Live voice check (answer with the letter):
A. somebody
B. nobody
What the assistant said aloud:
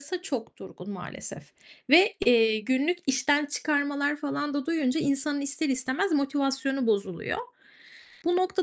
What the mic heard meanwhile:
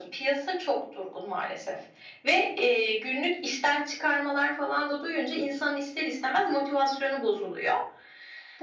B